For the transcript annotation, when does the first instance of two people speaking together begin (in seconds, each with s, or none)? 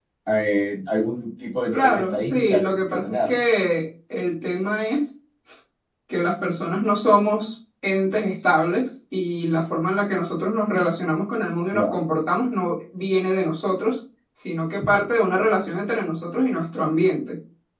1.7 s